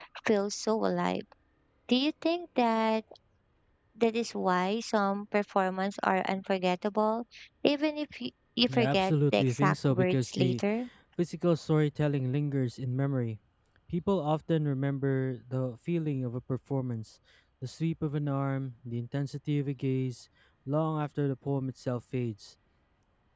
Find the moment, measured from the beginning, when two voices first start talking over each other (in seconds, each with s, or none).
8.6 s